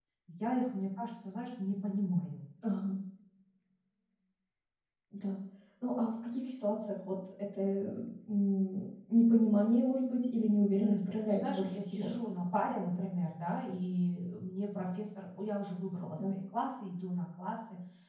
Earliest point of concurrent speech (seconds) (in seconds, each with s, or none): 10.8 s